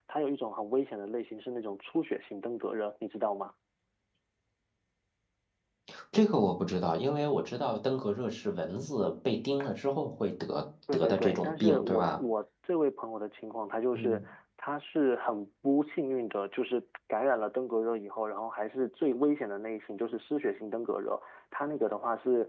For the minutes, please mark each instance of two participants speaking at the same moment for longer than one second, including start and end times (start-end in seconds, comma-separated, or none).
10.9-12.2